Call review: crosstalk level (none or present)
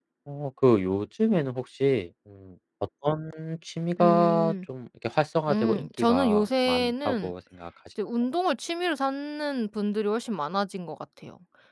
present